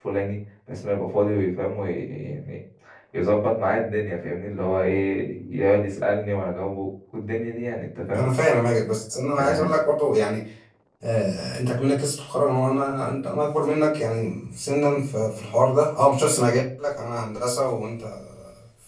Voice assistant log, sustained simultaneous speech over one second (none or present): none